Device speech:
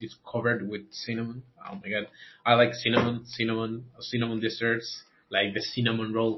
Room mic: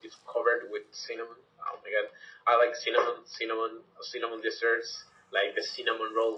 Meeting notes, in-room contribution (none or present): none